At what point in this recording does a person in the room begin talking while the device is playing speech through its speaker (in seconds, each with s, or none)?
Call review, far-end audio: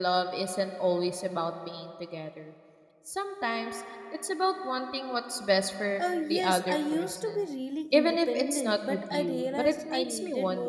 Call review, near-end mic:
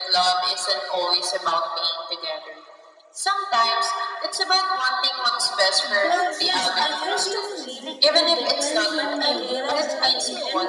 5.8 s